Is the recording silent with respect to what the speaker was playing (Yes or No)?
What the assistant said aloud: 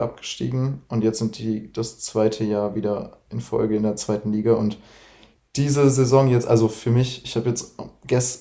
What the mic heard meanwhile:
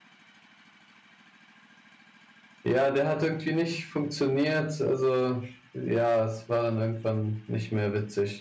Yes